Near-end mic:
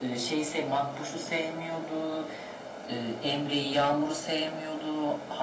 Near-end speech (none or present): none